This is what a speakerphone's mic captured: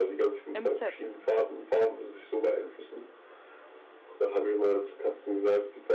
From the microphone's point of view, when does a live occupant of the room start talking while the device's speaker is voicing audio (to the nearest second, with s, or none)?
1 s